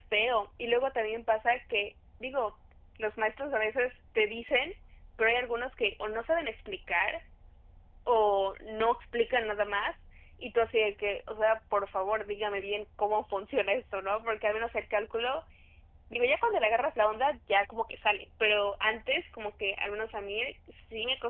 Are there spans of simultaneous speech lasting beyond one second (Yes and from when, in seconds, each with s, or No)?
No